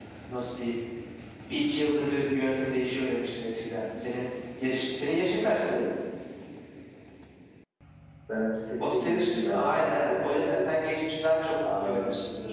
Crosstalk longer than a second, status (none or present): present